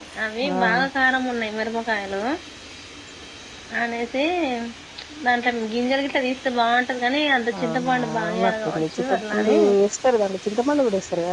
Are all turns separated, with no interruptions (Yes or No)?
No